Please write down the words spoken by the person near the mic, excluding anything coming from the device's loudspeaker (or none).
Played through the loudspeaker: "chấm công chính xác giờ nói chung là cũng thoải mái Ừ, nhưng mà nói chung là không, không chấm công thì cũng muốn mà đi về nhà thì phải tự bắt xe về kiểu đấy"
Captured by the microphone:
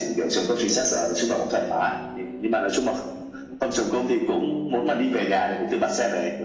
none